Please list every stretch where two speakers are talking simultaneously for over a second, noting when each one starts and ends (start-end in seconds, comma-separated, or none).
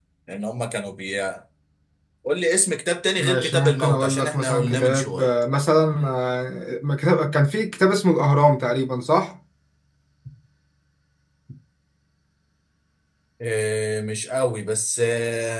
3.2-5.3